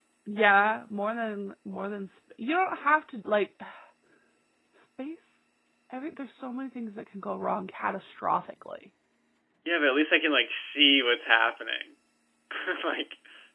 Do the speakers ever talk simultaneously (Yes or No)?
No